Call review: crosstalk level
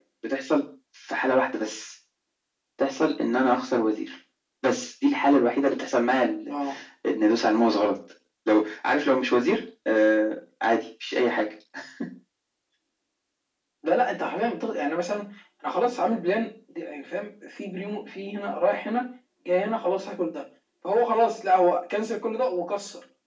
none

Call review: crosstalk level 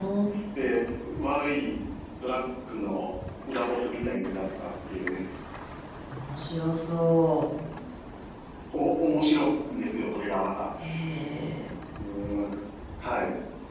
none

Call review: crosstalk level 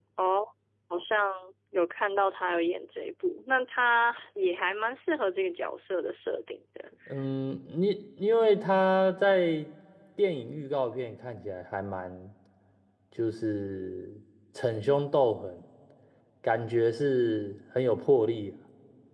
none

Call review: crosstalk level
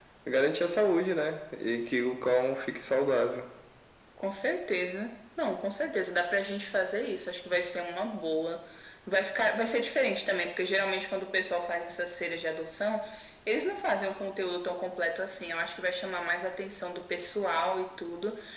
none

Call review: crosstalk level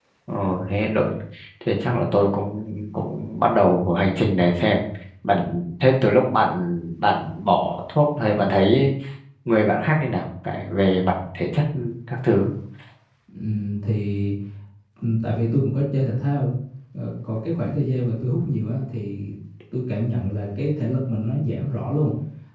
none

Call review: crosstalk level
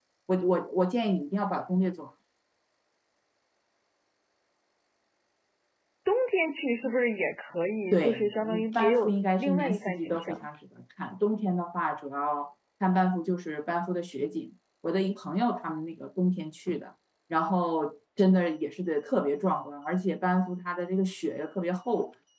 present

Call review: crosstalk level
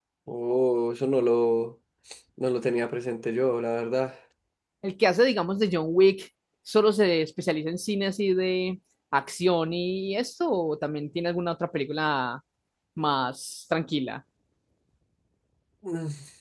none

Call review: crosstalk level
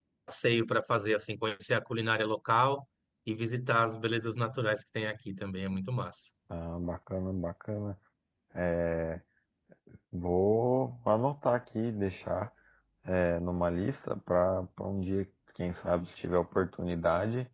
none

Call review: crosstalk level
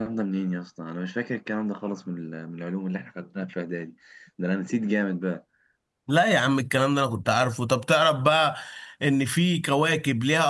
none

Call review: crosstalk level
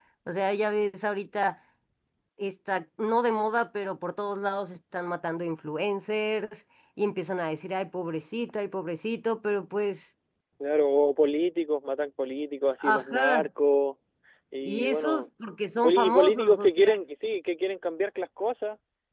present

